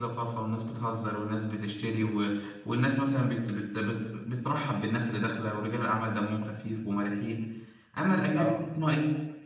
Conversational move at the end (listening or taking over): listening